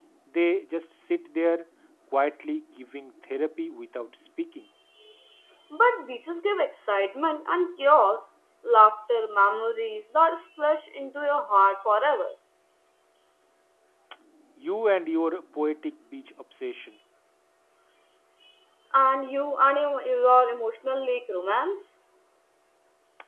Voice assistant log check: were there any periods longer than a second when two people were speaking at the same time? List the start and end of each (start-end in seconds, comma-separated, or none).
none